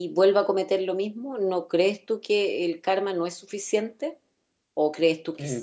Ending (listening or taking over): taking over